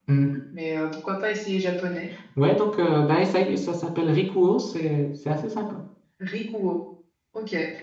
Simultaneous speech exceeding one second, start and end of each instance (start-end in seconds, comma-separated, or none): none